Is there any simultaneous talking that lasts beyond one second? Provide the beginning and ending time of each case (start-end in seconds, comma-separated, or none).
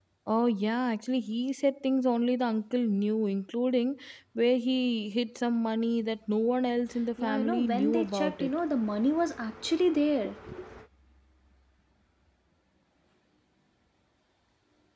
7.2-8.5